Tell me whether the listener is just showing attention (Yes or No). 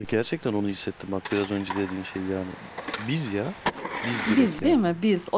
No